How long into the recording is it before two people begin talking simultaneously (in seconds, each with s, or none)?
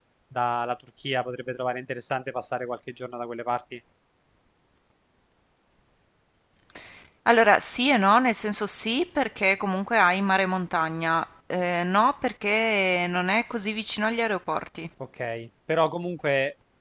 none